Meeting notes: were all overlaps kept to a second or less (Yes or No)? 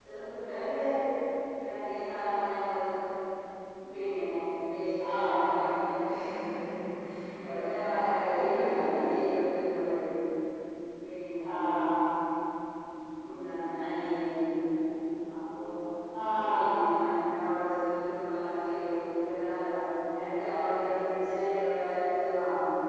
Yes